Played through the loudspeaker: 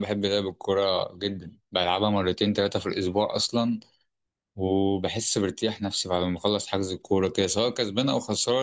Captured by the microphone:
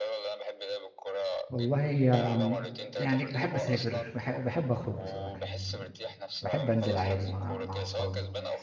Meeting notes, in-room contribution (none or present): present